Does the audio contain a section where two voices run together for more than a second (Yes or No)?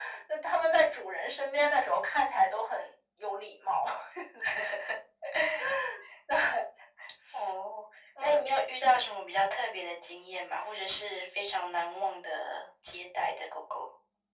No